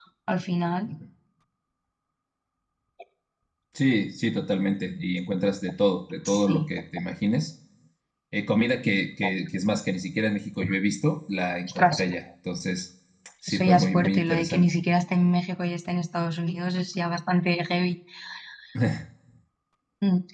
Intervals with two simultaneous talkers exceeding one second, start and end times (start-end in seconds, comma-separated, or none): 13.5-14.7